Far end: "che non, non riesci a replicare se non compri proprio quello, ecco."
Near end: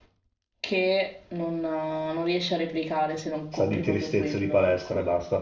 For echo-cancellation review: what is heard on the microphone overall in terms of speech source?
both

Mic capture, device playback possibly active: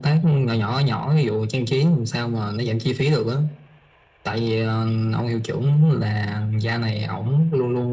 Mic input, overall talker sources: echo only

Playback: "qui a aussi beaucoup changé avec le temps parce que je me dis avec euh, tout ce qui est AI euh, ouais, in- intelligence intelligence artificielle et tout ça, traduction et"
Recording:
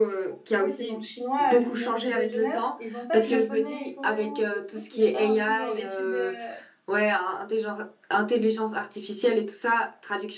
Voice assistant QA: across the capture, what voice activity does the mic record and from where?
both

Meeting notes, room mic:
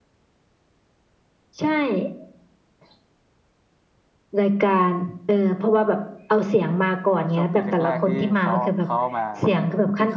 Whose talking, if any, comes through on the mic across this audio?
both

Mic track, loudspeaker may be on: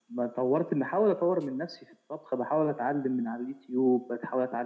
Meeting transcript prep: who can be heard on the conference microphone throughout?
echo only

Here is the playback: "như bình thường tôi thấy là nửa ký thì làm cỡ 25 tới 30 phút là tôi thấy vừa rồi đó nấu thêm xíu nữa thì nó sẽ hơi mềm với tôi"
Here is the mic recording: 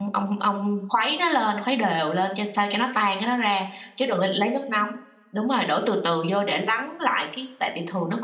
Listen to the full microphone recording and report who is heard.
user only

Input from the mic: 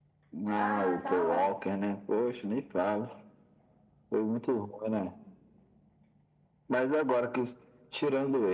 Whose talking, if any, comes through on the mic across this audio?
both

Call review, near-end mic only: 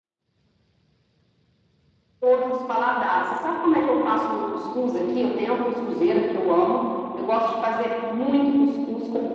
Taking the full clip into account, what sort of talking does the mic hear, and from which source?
echo only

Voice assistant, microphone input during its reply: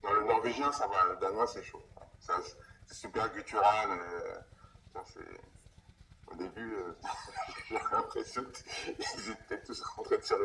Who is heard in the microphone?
echo only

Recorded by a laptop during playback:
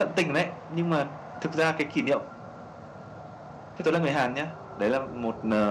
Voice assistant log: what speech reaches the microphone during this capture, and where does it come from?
echo only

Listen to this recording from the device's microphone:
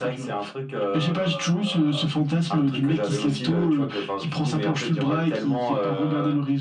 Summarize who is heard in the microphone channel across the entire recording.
echo only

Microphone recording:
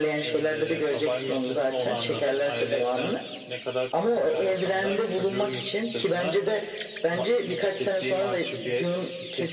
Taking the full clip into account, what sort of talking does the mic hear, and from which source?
echo only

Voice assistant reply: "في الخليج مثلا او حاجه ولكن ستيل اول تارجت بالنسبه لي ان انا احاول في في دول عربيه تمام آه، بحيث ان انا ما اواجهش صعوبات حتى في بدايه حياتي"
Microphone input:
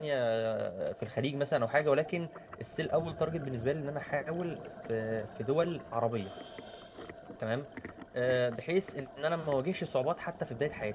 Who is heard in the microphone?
echo only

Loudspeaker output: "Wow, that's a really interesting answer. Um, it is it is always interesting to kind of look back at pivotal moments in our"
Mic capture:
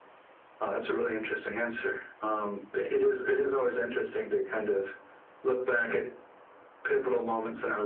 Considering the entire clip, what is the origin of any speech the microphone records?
echo only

